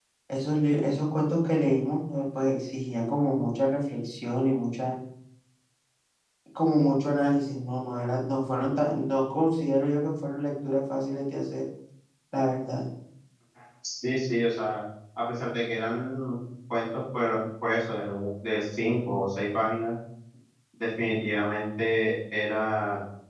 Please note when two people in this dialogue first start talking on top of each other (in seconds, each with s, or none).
none